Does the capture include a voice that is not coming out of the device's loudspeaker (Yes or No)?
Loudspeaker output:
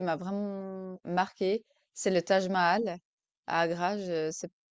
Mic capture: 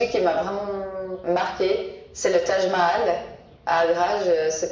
No